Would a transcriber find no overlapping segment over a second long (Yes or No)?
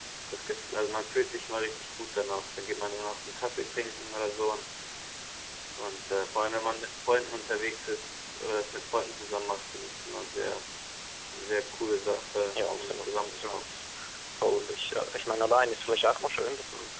No